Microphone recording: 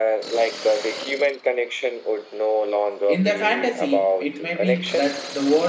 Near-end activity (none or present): present